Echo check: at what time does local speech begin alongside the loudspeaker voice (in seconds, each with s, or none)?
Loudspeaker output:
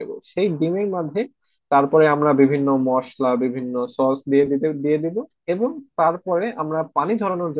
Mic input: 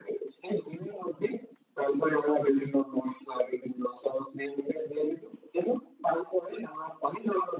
none